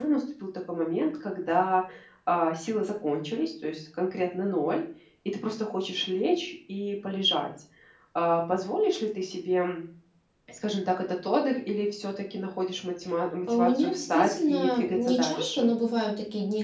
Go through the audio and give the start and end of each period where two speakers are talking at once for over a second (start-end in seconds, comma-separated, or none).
13.5-15.7